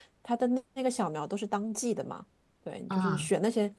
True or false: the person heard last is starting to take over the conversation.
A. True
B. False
B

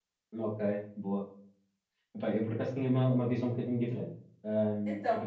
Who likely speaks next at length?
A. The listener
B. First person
B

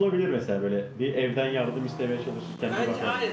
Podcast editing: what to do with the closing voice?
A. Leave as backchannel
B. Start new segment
B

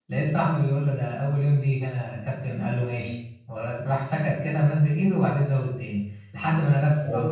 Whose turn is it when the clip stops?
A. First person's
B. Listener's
A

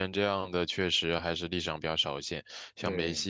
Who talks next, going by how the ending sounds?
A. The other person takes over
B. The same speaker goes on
B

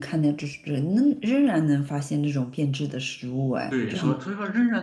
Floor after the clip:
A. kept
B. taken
B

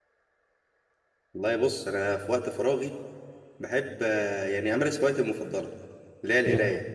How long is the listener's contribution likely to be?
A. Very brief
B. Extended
A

